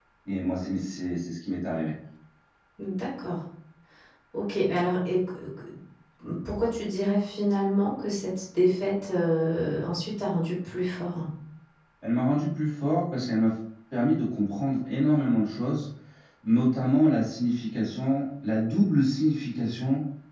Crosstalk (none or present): none